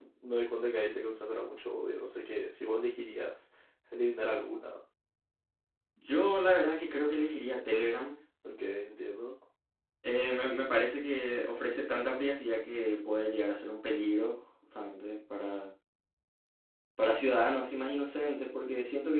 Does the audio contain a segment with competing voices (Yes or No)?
No